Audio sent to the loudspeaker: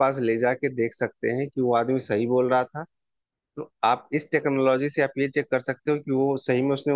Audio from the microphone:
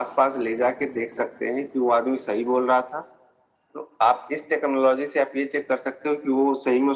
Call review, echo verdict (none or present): present